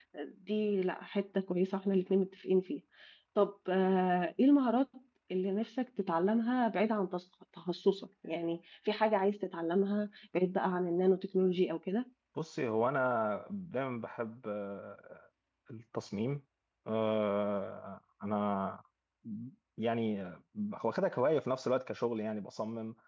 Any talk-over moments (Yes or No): No